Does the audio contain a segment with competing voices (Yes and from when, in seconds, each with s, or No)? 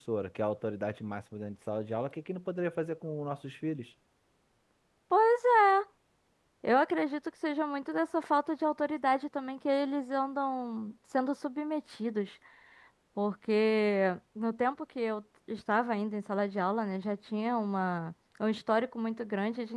No